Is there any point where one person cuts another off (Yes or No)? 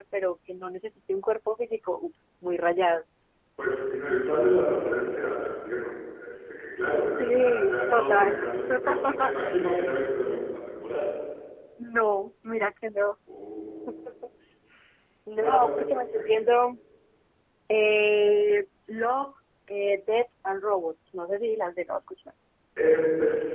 Yes